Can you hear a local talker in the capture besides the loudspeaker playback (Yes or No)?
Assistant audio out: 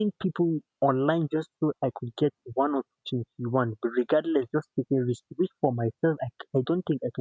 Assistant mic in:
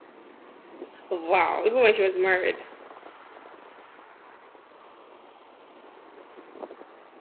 Yes